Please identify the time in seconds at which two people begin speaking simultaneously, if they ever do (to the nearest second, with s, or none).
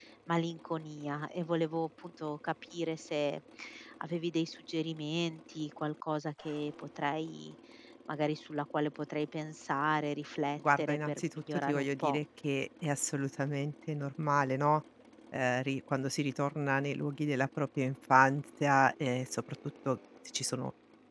11 s